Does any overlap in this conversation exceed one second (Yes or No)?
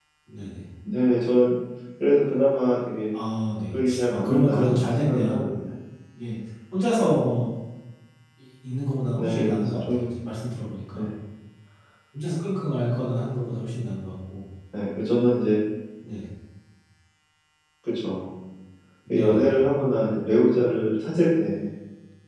Yes